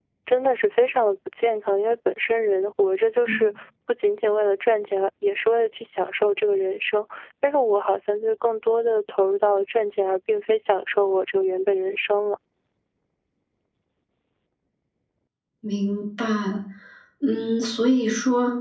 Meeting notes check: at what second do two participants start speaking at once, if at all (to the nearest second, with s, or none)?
none